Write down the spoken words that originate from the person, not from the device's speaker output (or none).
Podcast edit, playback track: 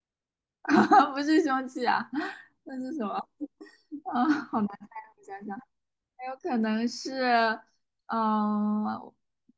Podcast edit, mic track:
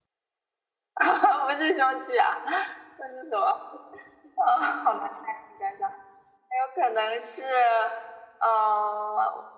none